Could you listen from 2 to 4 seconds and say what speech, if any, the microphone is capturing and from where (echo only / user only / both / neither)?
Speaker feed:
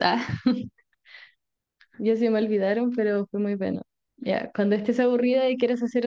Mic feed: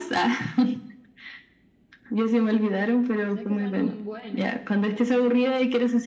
both